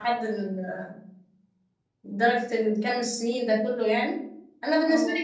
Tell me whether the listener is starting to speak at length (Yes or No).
No